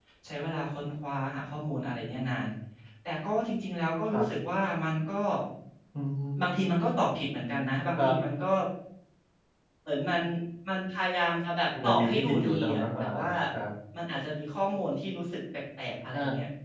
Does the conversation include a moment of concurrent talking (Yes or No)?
Yes